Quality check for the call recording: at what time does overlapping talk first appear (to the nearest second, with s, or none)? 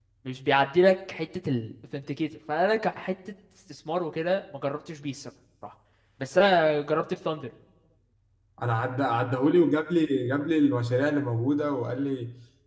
none